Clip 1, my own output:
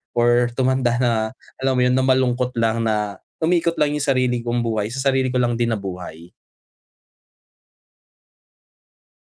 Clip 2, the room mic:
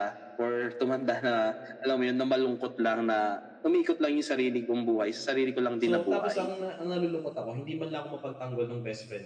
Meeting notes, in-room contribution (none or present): present